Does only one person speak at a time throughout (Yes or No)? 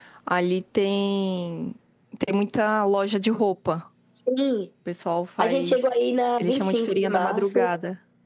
No